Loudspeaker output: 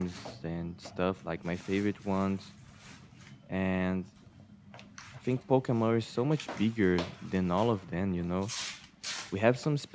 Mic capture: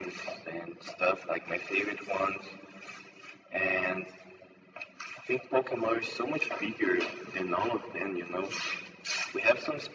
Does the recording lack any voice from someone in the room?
Yes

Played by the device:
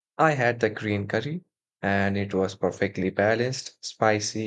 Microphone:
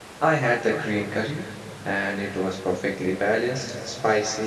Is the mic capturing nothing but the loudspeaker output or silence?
Yes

